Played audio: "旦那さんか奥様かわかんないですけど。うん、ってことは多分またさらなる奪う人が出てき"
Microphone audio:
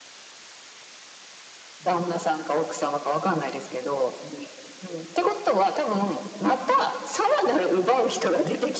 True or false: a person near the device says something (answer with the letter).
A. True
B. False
B